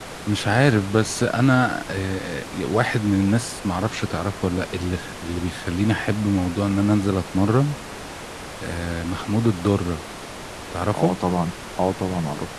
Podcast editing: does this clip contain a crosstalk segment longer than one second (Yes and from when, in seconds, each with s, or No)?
No